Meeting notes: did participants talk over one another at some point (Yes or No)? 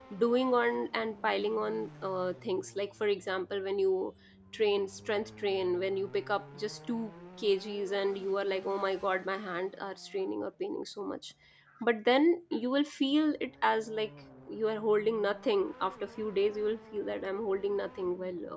No